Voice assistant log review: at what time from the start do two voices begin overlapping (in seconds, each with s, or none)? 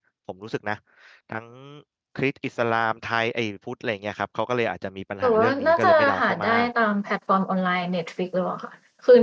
5.2 s